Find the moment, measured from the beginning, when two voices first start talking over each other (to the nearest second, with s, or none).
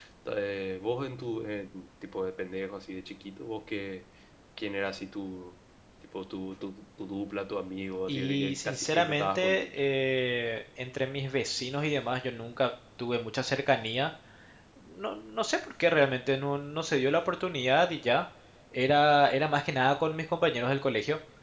8 s